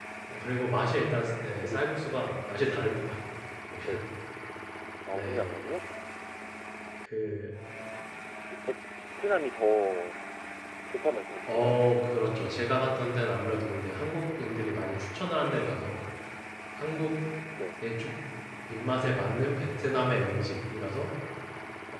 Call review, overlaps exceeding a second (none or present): none